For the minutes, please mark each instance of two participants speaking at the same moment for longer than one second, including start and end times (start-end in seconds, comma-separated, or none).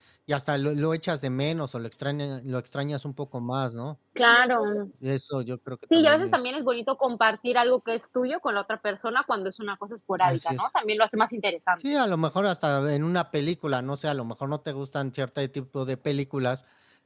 none